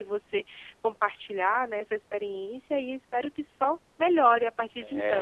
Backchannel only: No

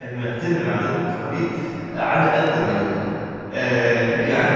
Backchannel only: No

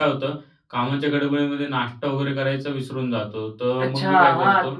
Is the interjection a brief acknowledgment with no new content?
No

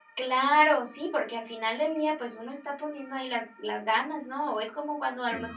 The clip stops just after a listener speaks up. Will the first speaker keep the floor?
Yes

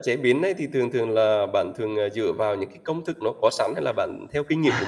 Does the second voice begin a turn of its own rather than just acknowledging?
Yes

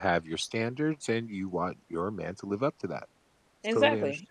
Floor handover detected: Yes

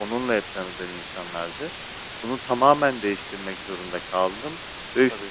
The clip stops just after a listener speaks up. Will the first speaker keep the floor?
Yes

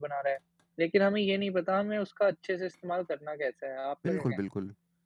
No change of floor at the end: No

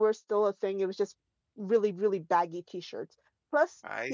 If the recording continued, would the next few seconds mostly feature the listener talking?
No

